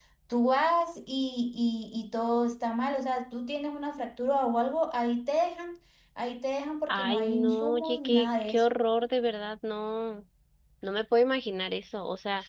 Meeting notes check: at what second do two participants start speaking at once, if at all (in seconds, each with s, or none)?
6.9 s